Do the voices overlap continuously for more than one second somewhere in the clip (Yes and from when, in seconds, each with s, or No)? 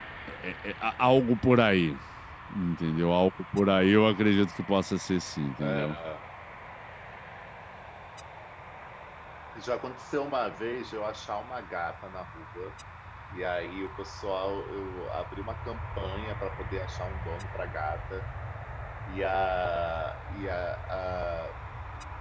No